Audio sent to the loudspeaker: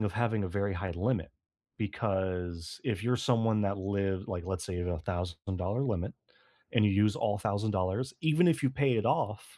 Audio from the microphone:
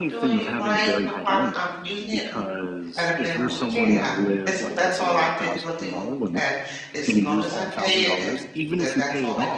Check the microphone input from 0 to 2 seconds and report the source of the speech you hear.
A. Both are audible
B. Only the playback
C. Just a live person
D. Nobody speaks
A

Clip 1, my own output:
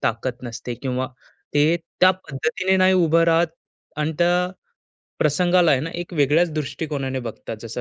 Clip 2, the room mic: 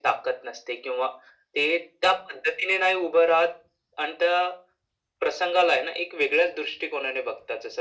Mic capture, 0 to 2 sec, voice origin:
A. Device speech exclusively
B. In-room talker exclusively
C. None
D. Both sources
A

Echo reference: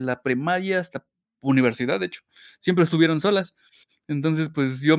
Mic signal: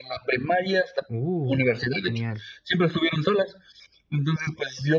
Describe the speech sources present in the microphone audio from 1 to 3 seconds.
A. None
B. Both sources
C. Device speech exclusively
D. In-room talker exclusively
B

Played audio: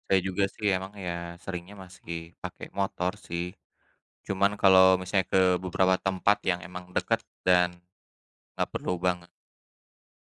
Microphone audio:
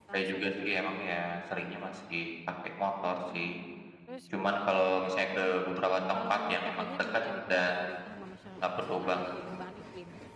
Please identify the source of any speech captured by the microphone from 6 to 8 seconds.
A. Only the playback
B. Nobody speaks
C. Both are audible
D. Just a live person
C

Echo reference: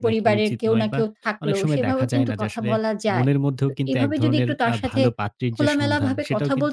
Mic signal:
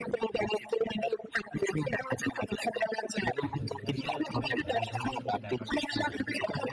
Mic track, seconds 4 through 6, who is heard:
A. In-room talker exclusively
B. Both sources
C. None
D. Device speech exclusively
B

